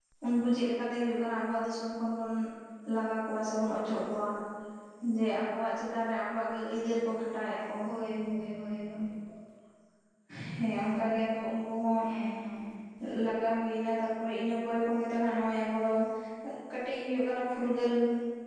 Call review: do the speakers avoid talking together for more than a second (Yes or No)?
Yes